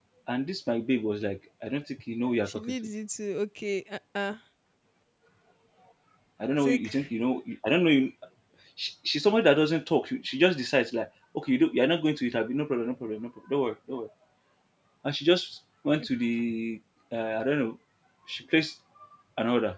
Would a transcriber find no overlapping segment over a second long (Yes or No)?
Yes